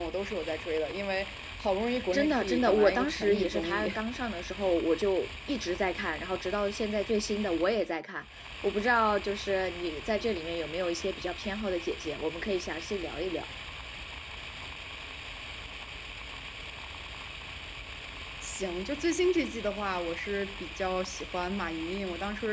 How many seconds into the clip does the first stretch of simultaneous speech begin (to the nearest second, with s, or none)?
2 s